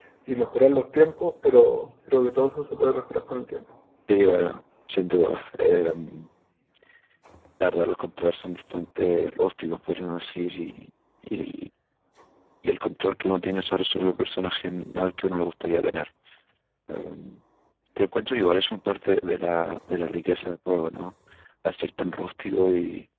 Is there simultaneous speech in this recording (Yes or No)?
No